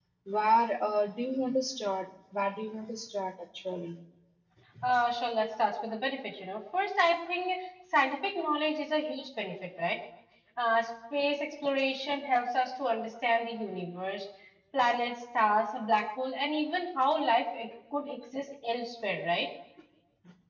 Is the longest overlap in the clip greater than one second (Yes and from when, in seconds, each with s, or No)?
No